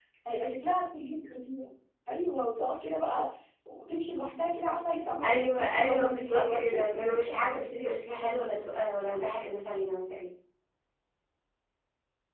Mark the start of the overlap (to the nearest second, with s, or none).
5 s